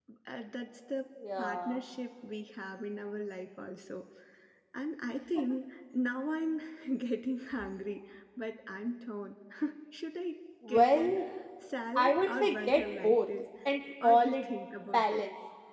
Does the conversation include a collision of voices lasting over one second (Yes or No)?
Yes